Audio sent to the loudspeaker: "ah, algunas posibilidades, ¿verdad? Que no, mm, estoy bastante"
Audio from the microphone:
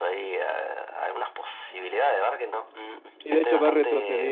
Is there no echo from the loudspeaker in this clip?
No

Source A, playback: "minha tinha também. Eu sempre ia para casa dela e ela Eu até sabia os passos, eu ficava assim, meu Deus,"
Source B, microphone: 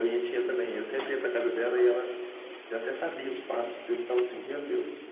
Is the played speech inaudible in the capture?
No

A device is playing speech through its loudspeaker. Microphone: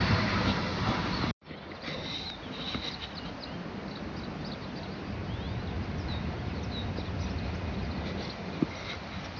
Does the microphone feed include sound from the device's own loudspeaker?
No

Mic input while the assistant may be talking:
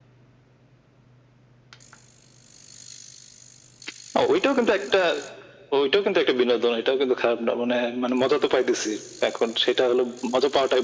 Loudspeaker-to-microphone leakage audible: Yes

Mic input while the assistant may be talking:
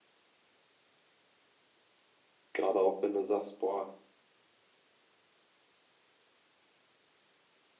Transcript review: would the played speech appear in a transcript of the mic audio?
No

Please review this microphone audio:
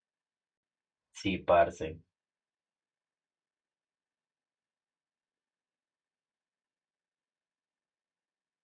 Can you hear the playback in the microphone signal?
No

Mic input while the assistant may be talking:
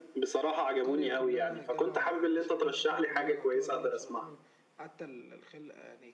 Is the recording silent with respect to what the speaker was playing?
No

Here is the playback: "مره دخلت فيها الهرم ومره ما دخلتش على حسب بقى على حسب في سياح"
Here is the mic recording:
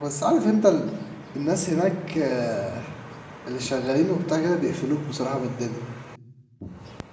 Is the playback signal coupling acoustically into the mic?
No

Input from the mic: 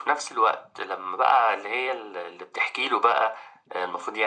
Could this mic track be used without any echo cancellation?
No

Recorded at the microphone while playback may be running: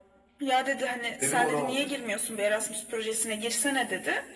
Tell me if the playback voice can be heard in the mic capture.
Yes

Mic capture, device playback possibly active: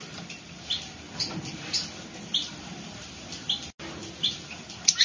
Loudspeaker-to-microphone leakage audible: No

